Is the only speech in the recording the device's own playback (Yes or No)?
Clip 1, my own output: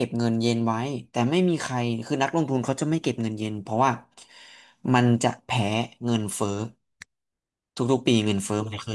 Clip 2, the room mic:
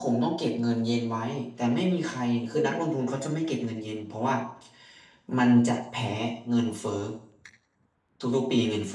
No